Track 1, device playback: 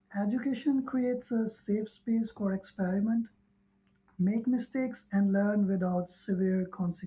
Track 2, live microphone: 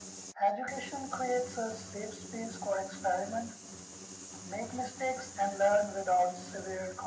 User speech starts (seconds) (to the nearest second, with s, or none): none